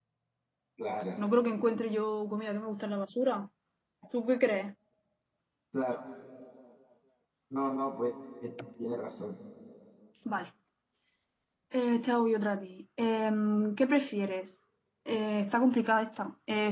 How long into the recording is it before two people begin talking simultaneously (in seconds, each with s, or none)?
none